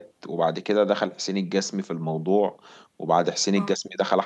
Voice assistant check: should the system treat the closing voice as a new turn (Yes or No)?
No